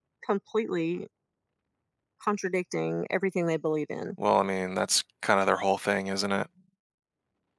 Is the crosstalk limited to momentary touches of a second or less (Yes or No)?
Yes